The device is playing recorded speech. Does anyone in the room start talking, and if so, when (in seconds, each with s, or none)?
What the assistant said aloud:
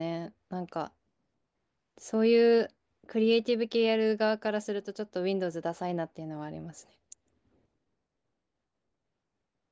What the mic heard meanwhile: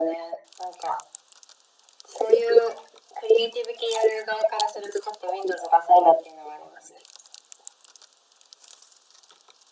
none